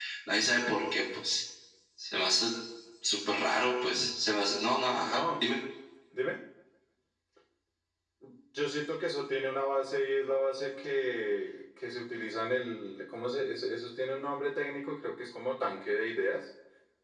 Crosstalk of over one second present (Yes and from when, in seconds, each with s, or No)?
No